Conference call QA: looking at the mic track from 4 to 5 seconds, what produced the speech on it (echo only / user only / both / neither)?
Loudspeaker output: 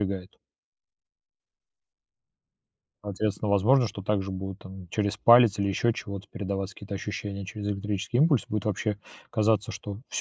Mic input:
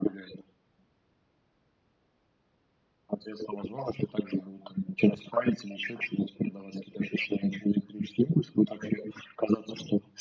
echo only